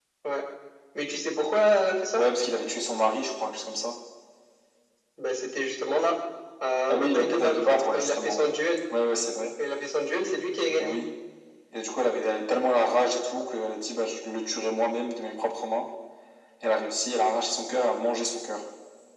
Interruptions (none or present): present